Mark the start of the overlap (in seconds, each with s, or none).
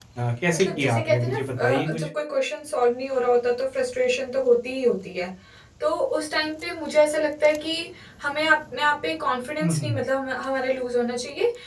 0.5 s